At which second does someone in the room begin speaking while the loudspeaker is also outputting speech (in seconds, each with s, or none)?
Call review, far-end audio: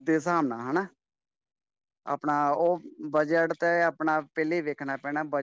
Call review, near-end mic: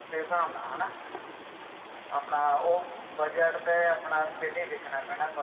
none